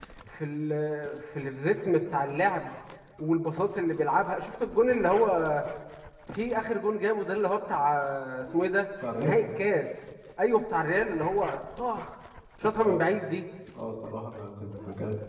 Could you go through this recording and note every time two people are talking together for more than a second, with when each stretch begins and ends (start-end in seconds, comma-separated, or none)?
none